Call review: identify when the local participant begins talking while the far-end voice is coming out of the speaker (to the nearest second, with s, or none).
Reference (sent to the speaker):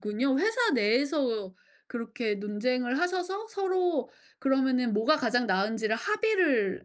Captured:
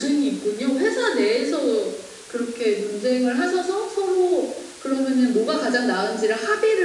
none